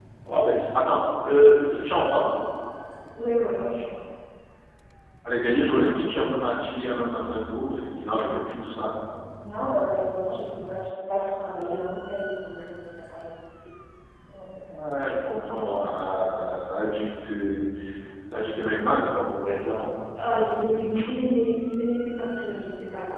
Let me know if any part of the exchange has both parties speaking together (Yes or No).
No